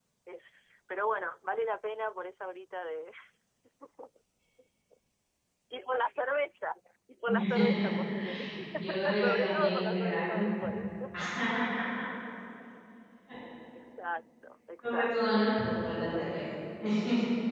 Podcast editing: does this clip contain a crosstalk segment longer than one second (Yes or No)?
Yes